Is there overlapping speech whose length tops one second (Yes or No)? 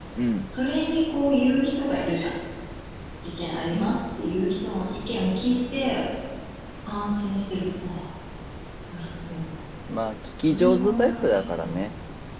Yes